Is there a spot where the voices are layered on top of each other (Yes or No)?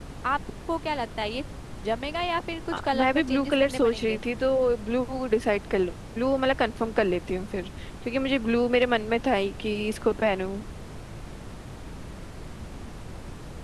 Yes